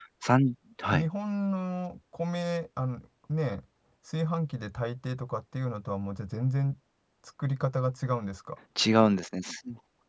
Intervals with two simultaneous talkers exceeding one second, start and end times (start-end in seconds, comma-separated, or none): none